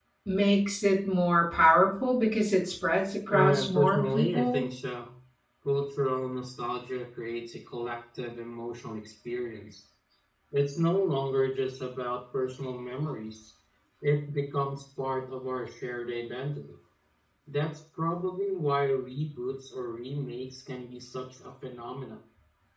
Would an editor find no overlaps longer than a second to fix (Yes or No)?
No